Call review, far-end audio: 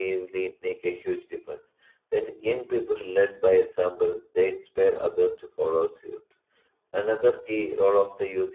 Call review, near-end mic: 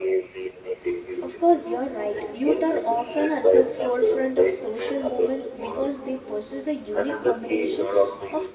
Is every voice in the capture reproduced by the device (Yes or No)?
No